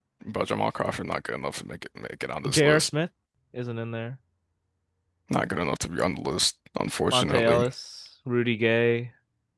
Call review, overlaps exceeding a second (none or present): none